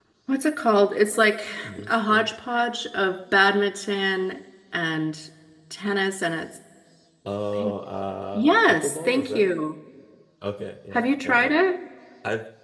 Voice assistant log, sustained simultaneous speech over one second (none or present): present